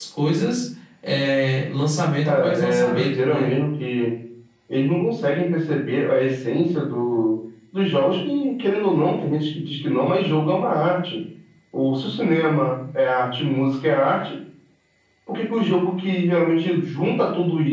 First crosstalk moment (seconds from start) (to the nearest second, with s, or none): 2 s